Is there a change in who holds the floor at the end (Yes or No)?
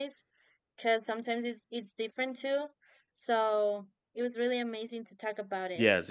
Yes